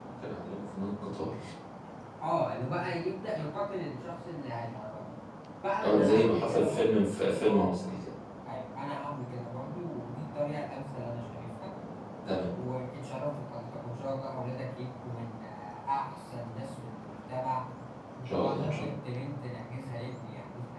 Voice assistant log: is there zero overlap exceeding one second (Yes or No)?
No